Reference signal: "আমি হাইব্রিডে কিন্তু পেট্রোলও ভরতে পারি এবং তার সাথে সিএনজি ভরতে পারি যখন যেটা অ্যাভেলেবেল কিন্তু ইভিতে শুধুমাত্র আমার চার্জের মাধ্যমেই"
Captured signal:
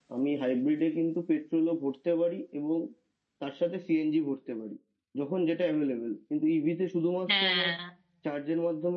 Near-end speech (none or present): present